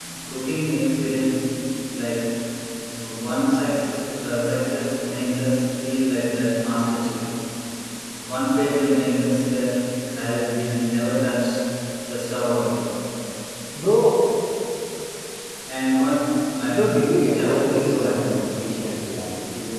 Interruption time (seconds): 17 s

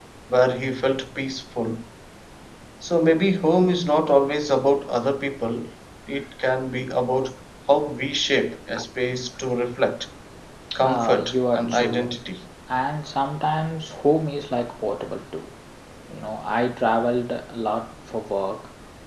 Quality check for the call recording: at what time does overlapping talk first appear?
11 s

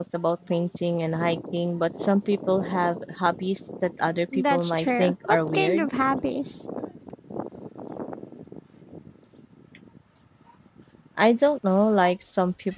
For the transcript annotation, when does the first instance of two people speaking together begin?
4 s

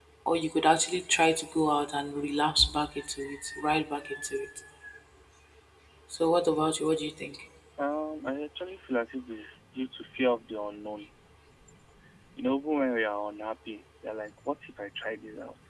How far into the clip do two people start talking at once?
none

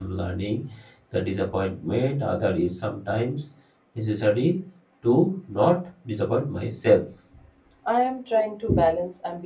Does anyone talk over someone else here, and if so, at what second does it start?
none

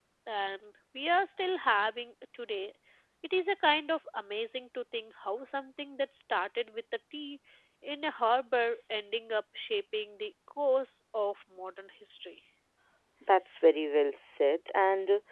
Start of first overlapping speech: none

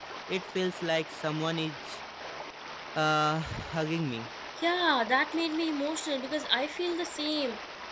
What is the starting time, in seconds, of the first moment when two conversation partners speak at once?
none

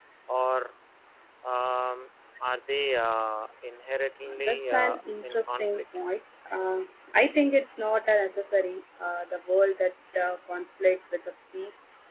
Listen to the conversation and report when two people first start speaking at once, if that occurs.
4 s

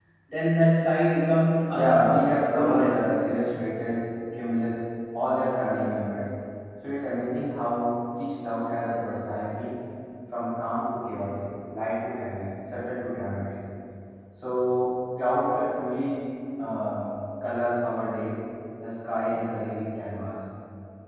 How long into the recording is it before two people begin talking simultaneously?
2 s

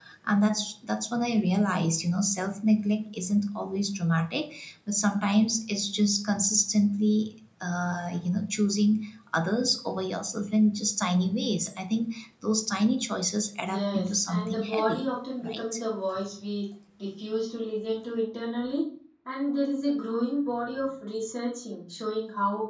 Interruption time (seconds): 14 s

